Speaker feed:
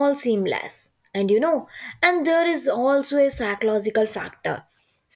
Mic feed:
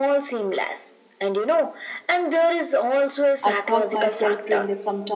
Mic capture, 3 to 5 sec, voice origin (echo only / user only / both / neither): both